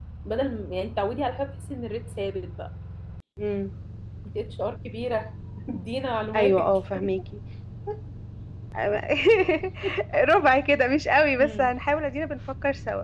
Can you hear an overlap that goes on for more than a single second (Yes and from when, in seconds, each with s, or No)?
No